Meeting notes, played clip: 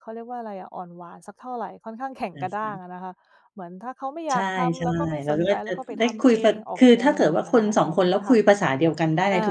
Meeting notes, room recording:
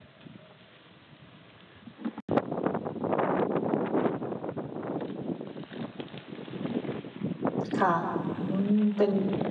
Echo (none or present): none